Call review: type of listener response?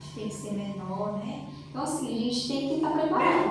taking over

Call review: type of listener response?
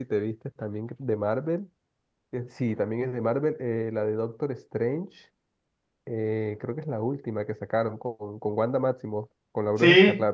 taking over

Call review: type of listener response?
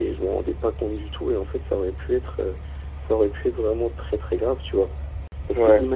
listening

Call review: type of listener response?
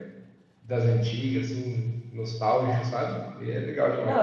taking over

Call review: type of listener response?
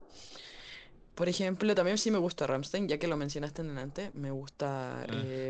listening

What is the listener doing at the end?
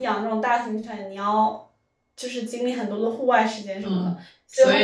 taking over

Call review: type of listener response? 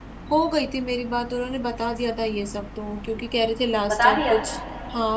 listening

